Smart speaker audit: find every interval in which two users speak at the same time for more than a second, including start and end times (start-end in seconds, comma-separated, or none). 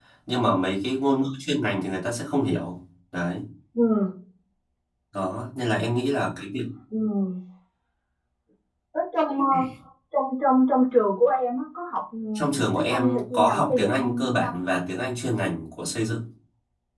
12.3-14.6